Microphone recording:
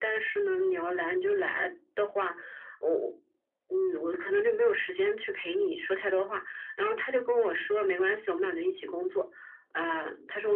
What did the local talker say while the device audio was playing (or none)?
none